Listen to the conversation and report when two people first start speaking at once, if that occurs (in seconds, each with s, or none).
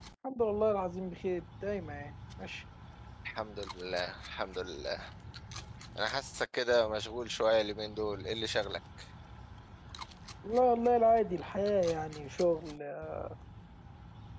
none